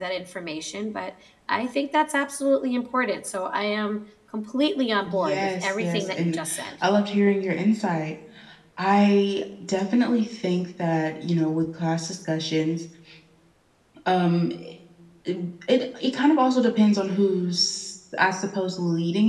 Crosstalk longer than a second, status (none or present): present